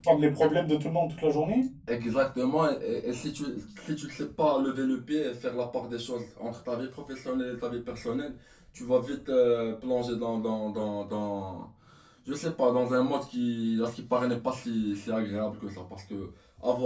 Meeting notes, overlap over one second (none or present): none